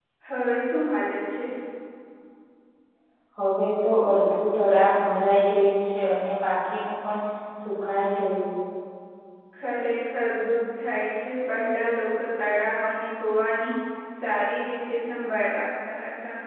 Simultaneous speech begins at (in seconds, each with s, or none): none